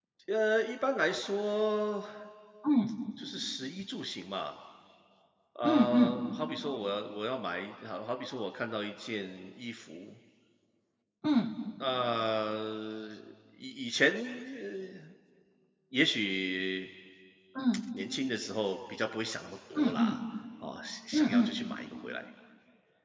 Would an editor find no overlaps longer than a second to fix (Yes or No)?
Yes